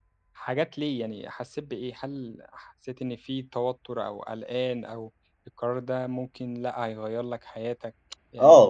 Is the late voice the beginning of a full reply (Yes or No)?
Yes